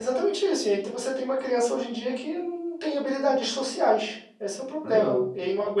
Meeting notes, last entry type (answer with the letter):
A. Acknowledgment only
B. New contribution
A